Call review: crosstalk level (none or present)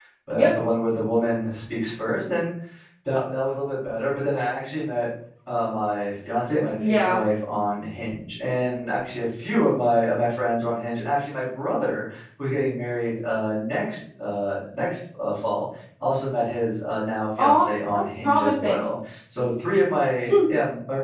present